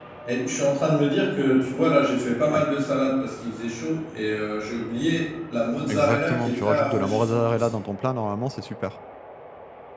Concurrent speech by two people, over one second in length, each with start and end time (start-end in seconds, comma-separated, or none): 5.9-7.8